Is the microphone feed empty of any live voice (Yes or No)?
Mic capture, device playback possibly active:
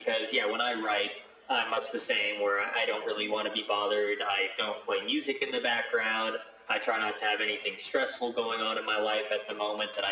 Yes